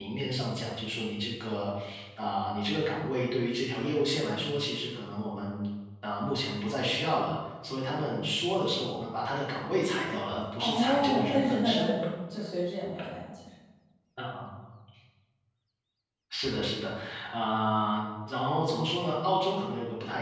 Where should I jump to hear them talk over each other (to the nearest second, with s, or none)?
11 s